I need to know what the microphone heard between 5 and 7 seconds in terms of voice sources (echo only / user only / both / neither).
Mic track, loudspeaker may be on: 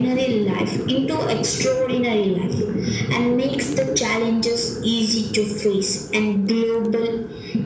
echo only